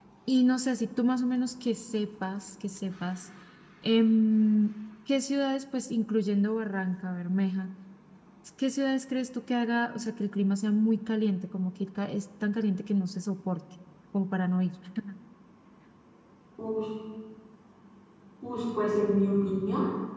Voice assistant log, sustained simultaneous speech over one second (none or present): none